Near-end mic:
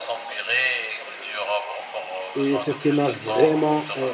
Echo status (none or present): present